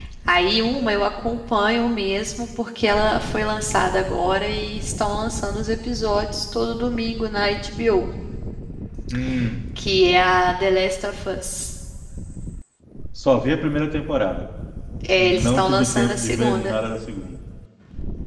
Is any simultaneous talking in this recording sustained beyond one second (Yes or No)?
Yes